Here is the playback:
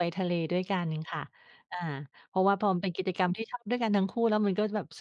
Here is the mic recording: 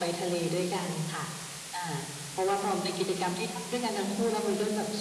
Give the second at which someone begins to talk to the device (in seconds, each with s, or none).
none